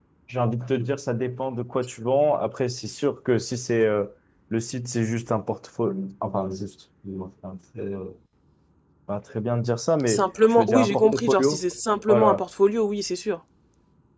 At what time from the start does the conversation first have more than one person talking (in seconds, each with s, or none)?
10.1 s